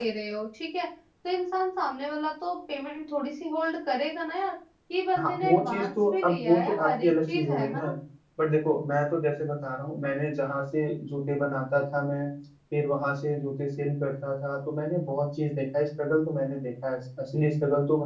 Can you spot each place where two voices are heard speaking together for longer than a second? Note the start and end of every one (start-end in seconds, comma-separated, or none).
5.2-7.8